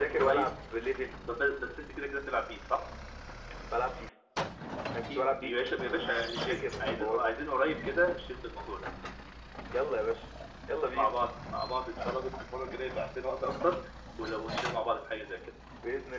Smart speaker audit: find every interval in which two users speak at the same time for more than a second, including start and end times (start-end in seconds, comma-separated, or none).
5.1-7.4